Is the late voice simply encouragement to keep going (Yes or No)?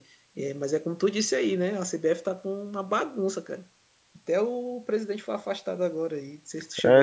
No